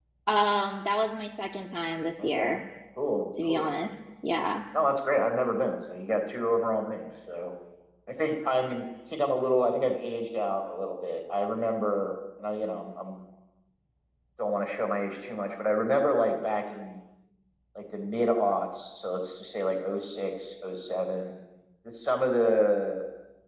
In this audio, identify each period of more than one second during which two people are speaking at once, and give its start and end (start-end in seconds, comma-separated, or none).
none